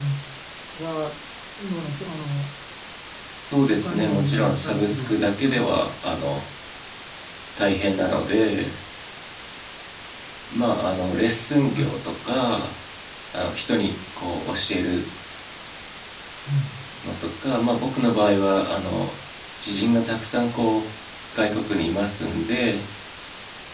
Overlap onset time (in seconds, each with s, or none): 3.6 s